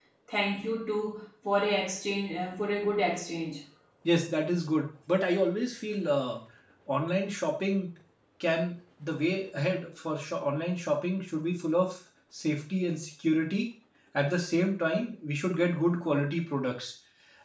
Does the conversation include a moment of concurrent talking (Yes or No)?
No